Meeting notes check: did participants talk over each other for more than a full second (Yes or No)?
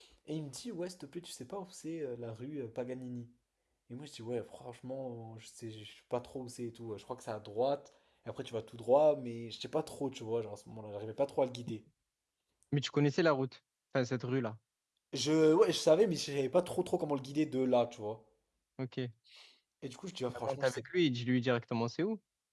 No